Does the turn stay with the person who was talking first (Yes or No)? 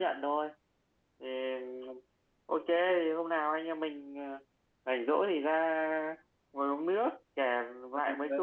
Yes